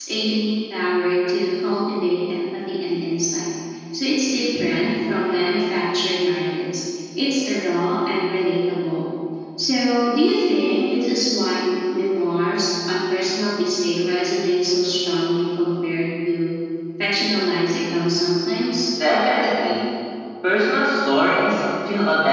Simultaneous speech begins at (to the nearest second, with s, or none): none